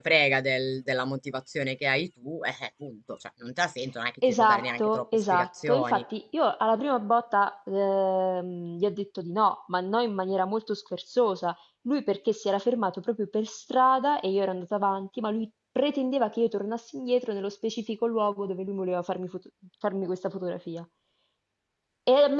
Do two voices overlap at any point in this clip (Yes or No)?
Yes